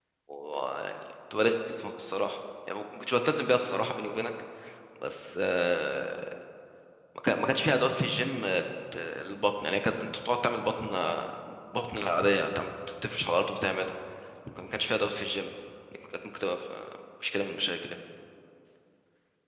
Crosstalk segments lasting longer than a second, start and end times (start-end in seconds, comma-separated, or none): none